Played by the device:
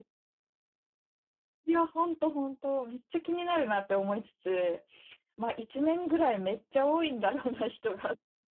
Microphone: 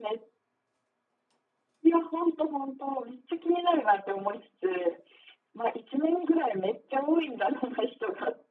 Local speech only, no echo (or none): none